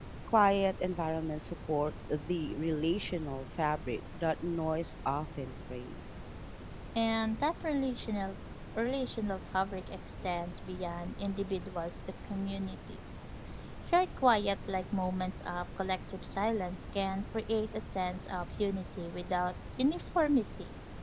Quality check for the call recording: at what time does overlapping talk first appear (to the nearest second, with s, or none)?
none